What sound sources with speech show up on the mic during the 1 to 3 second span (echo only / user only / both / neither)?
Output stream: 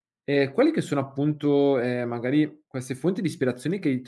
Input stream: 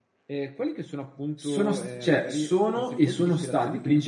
both